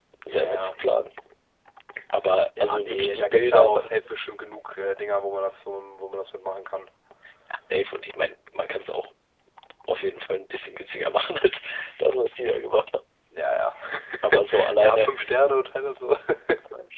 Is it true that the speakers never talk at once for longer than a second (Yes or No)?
No